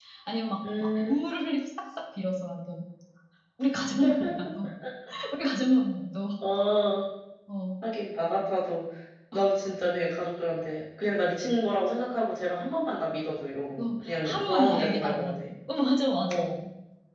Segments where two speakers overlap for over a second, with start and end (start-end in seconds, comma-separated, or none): 13.7-15.4